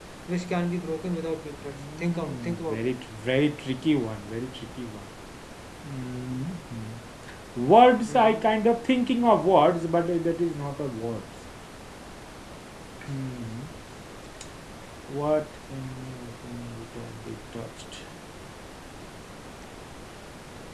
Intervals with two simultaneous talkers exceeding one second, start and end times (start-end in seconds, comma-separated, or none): 1.6-2.9